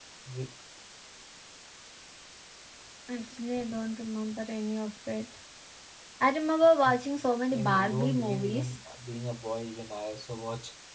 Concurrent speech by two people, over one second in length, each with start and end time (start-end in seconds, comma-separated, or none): 7.5-8.7